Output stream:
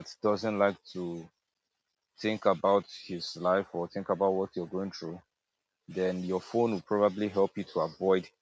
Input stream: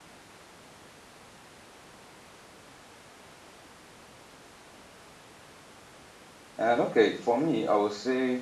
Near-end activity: present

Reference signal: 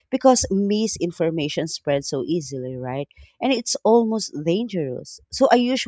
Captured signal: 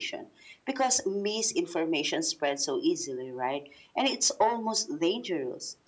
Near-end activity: none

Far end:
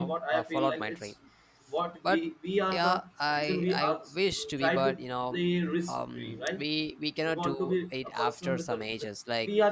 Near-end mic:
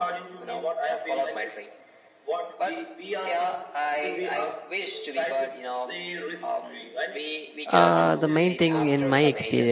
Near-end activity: present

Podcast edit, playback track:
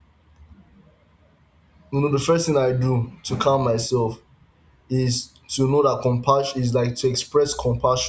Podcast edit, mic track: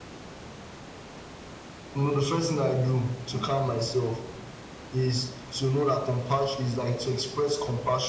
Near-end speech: none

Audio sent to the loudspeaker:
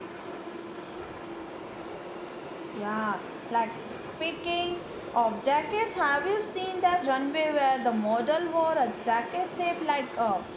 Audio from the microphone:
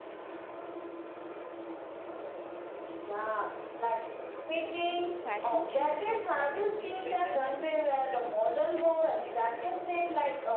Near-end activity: present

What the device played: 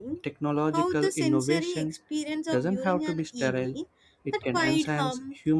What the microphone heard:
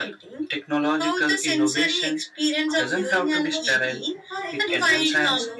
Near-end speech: present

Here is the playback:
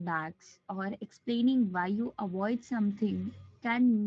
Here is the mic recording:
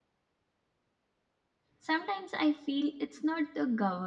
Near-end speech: present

